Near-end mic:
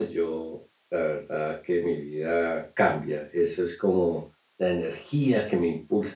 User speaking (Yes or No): Yes